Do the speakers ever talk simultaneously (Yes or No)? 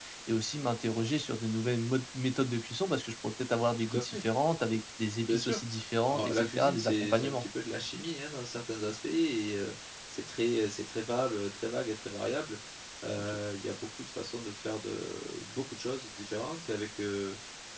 Yes